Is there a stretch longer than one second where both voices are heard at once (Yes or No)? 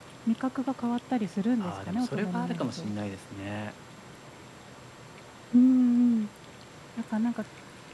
Yes